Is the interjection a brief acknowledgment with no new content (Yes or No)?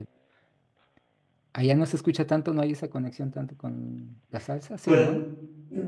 No